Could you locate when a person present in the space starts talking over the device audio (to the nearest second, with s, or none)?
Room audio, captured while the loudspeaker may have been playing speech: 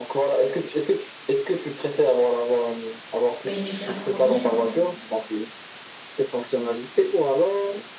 3 s